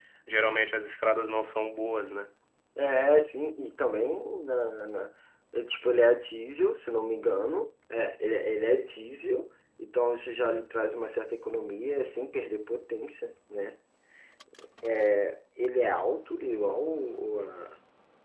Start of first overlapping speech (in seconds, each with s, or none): none